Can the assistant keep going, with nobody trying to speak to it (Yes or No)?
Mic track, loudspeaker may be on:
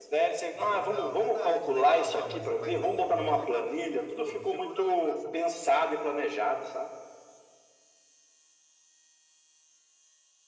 No